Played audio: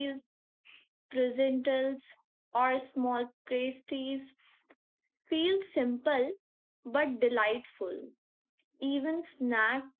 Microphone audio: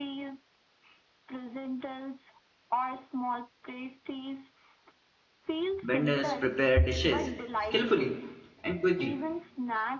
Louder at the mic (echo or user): user